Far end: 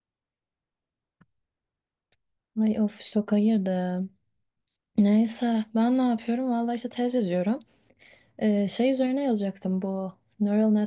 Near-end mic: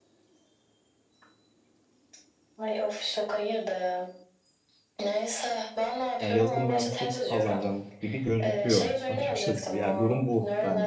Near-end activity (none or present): present